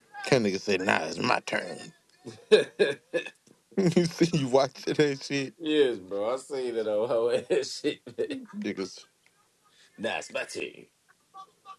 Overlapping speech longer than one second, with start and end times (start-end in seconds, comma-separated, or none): none